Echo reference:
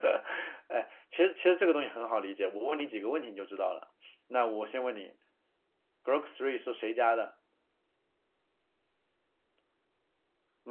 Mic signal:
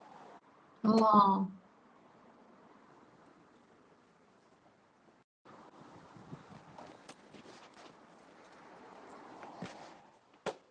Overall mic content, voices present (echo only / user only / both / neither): user only